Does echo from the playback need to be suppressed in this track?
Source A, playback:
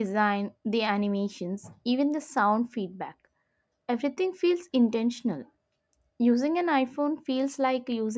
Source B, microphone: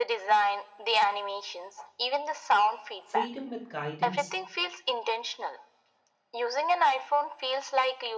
Yes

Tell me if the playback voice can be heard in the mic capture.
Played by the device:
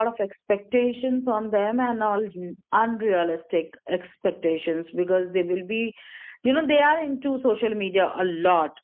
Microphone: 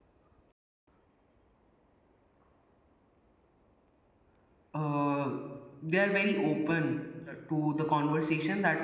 No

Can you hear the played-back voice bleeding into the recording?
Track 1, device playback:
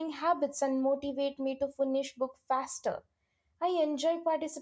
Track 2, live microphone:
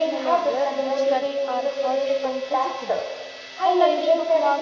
Yes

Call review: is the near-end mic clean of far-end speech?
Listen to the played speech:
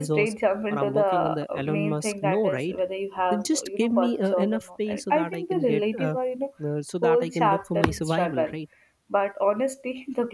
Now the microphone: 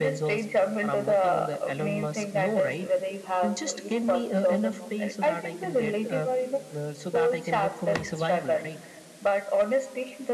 No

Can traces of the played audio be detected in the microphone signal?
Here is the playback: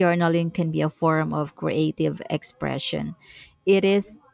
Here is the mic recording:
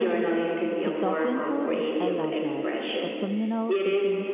Yes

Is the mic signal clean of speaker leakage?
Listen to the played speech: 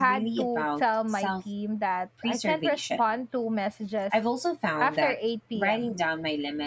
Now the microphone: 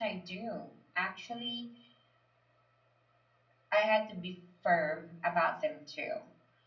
Yes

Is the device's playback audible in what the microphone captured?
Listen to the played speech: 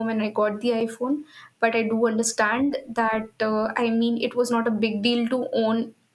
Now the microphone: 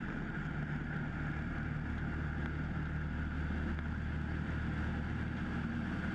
No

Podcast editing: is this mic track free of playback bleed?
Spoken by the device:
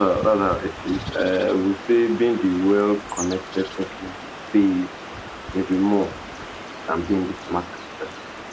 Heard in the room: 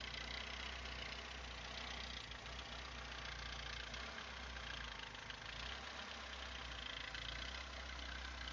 Yes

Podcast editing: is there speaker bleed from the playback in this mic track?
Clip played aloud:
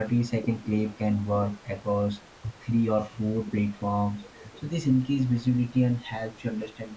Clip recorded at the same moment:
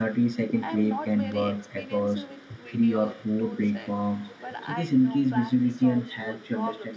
Yes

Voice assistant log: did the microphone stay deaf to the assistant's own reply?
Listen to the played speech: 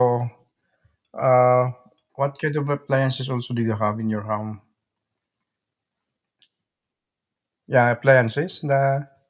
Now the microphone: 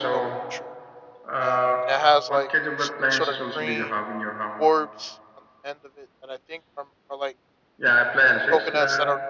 No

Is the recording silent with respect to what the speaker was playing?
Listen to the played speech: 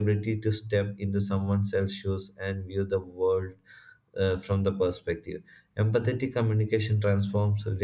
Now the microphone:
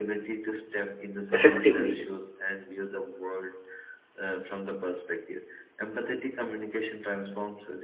No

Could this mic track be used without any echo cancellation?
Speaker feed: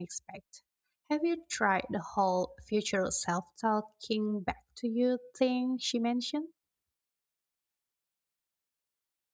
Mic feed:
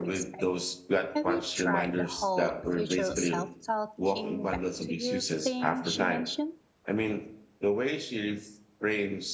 No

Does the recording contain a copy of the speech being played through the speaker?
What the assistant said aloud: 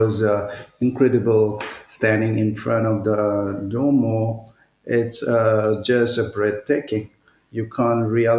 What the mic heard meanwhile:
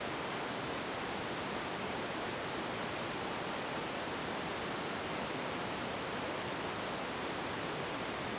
No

